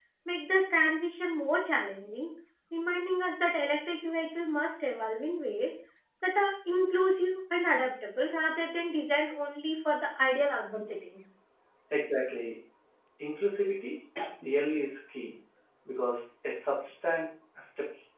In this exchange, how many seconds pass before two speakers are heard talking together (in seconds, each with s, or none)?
none